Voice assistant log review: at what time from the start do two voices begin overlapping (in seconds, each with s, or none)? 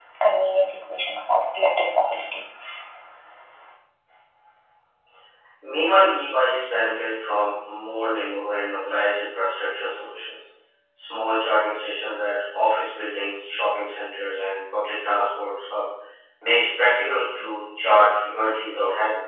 none